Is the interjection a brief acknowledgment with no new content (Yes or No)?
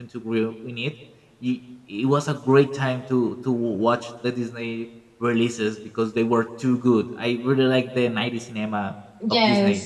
Yes